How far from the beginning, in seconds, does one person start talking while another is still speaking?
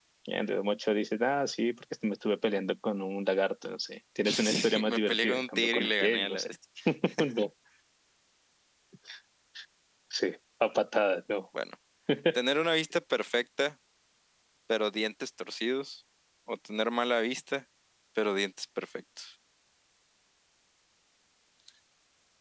4.2 s

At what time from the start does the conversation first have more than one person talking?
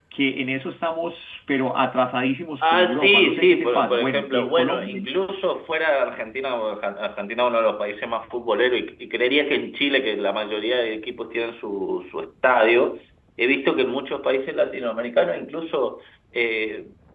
2.6 s

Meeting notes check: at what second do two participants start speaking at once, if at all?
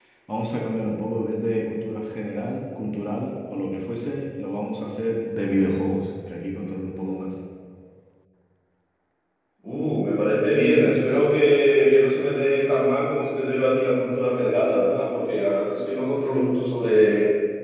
none

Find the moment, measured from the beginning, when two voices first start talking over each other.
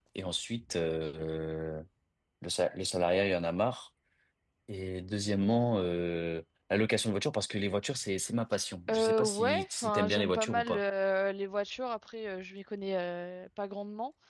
8.9 s

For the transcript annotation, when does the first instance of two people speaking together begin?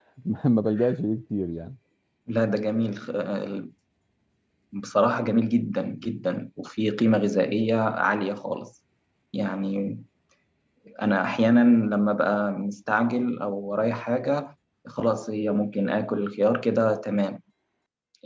none

